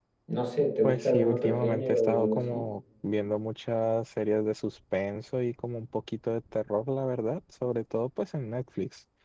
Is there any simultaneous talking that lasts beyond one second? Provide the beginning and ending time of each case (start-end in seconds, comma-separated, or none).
0.8-2.6